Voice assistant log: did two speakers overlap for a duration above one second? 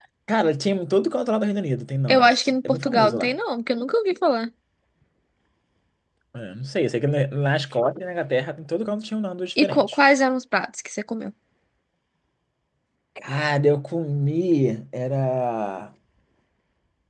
Yes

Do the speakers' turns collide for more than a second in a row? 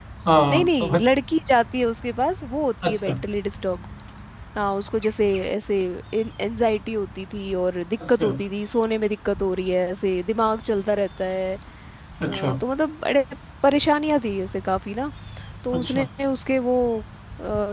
No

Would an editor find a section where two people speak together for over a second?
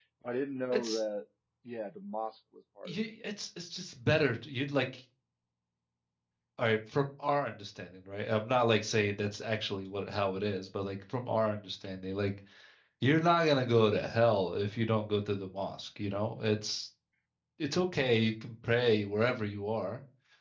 No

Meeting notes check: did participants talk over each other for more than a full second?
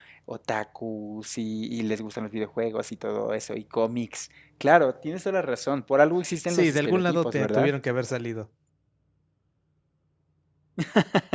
Yes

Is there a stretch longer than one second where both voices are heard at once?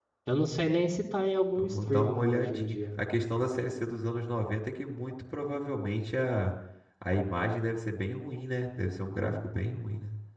Yes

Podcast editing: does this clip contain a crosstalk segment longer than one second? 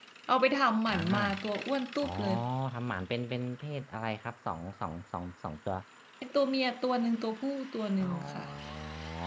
No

